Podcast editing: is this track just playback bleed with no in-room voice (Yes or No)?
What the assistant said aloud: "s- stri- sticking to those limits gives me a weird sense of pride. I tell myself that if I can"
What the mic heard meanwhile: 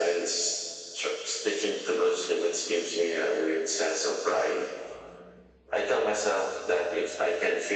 Yes